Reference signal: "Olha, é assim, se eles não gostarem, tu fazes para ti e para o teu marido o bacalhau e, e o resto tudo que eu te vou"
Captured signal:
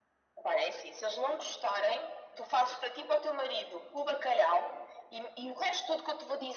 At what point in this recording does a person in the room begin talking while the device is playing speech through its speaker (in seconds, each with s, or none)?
none